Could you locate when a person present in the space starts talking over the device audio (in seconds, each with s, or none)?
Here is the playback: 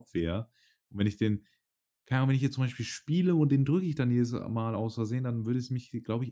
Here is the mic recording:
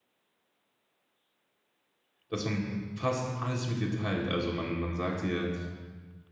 2.3 s